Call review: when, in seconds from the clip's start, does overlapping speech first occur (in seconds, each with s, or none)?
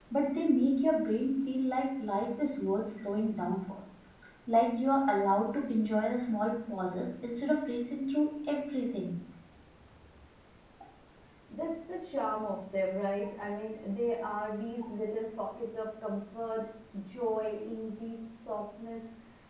none